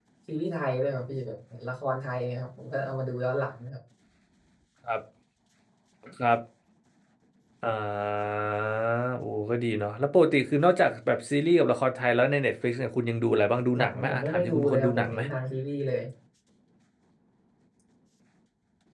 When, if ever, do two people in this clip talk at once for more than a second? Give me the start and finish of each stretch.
13.8-15.2

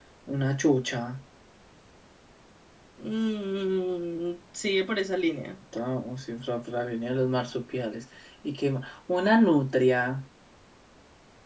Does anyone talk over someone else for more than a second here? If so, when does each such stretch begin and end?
none

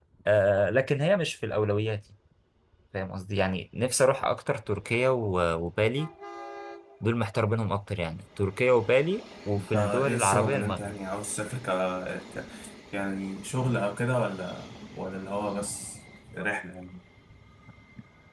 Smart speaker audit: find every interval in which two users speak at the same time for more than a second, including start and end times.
9.6-11.0

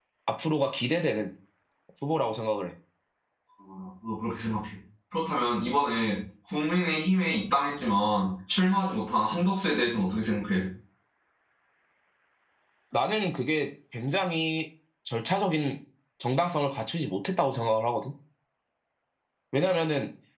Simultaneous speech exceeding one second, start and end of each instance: none

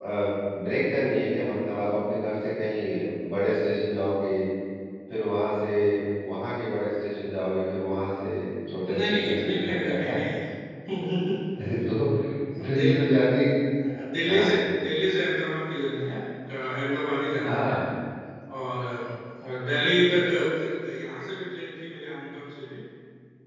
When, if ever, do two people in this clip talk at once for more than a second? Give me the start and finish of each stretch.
8.9-10.2

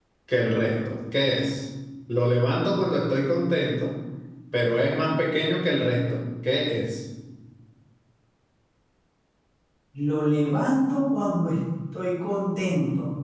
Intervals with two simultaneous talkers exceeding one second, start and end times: none

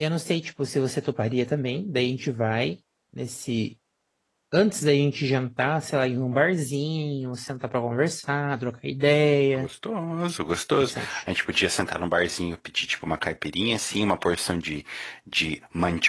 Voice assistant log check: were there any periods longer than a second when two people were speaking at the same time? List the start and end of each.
none

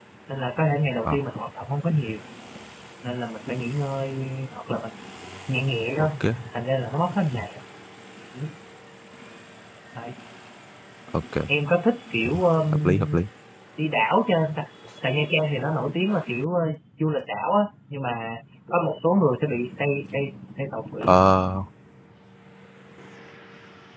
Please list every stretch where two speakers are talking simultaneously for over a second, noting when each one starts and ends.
none

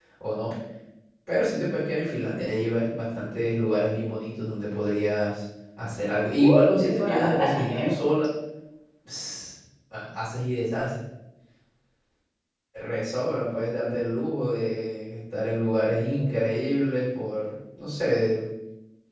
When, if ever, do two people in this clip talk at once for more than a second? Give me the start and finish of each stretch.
6.4-7.9

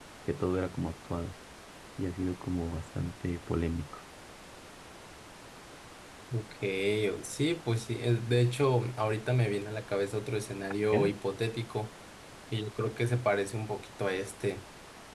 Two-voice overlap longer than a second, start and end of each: none

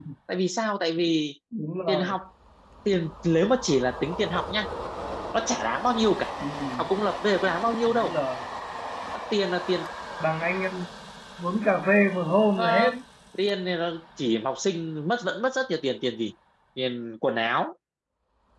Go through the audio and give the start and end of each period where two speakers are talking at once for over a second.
none

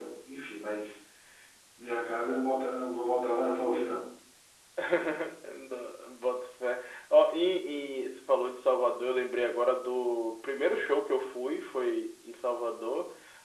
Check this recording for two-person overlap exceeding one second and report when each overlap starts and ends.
none

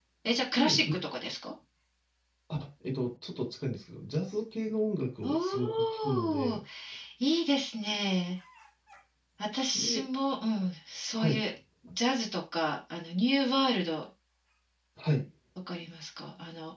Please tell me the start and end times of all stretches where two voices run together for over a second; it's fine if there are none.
5.2-6.6

